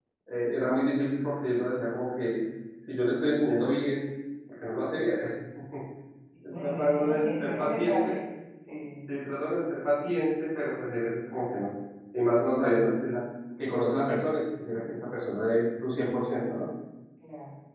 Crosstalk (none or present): present